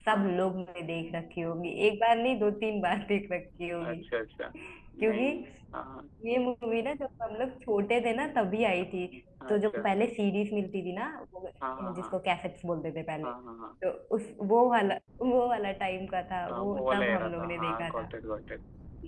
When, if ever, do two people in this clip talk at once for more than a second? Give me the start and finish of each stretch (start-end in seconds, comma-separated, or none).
16.5-18.1